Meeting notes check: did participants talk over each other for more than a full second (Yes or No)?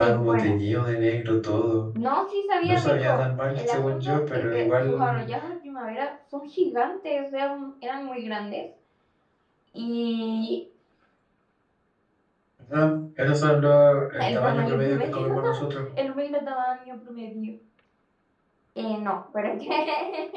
Yes